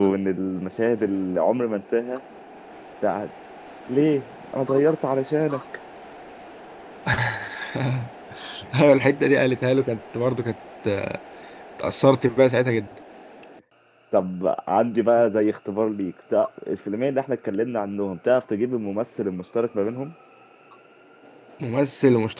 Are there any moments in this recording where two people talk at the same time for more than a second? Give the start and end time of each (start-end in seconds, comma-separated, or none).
none